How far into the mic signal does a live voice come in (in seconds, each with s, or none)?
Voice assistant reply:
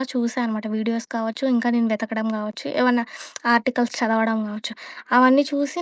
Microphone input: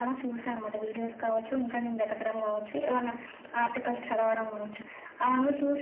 none